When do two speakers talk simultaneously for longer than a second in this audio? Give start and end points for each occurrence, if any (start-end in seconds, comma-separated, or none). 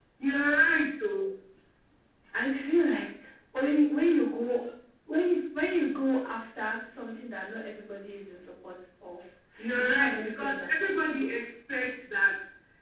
9.8-11.3